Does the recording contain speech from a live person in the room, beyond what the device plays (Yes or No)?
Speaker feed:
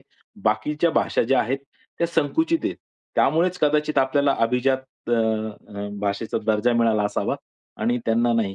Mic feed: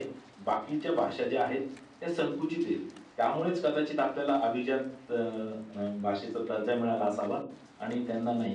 No